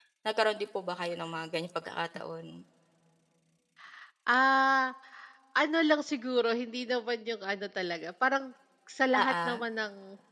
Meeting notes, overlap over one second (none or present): none